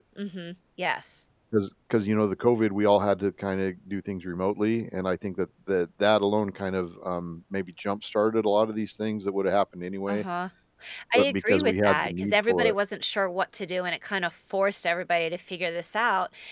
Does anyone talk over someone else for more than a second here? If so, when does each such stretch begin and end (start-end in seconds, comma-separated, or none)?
11.2-12.8